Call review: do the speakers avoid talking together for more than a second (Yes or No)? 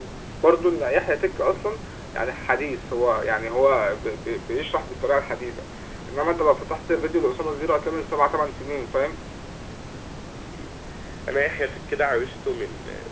Yes